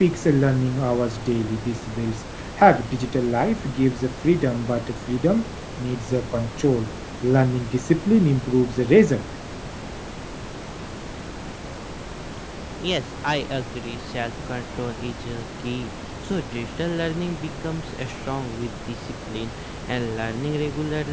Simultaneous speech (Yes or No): No